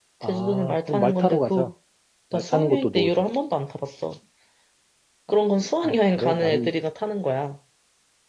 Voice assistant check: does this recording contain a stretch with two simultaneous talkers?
Yes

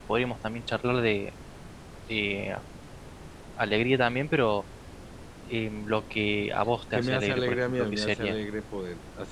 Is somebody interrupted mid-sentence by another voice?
Yes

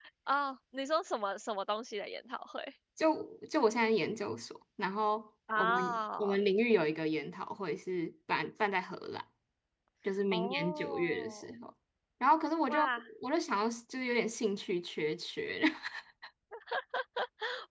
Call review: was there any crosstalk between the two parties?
Yes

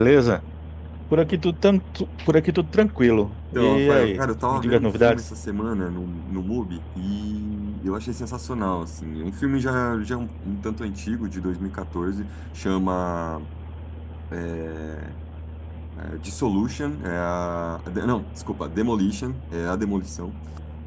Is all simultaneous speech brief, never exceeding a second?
No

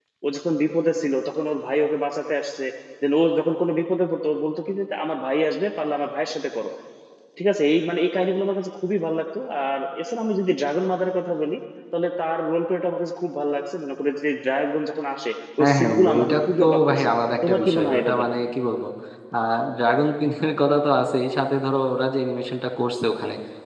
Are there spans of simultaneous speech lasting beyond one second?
Yes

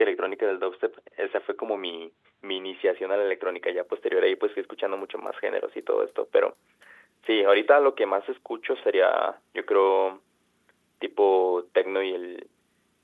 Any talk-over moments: No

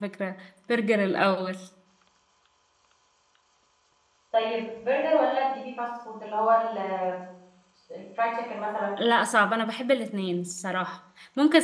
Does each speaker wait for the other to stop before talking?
Yes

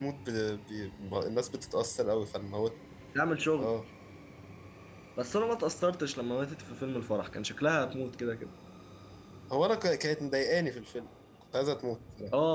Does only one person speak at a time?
Yes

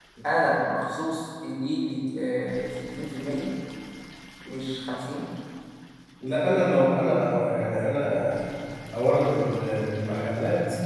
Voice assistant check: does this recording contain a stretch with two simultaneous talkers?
No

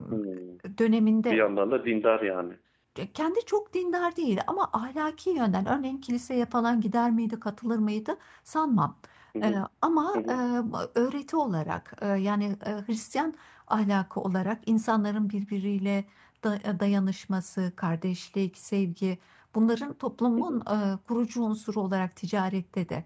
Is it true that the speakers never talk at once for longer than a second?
Yes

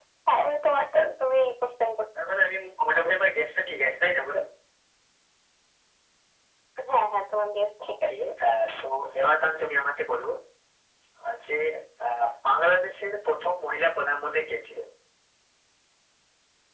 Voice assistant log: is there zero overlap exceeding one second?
Yes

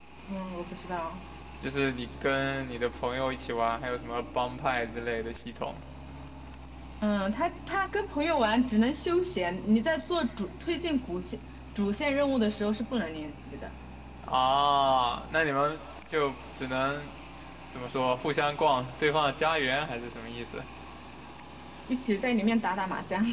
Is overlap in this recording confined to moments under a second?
Yes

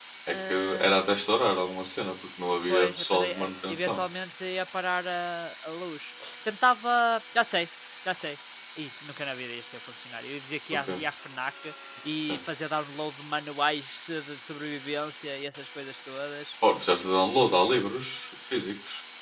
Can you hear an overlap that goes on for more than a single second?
Yes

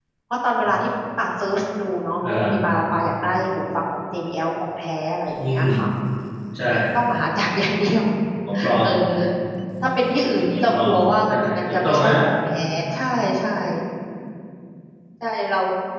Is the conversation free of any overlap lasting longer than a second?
No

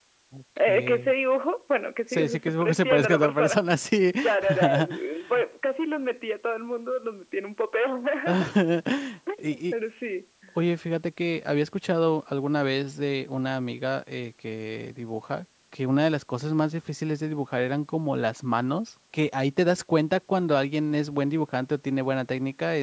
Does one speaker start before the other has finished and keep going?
Yes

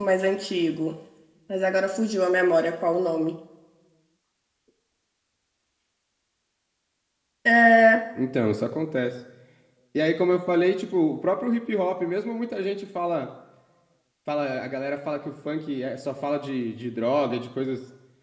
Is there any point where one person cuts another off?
No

